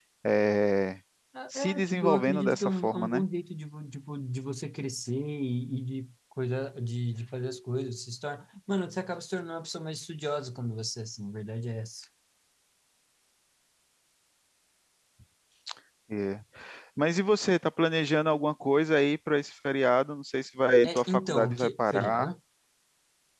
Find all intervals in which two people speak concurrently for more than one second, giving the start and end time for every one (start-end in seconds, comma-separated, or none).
1.6-3.2, 20.8-22.3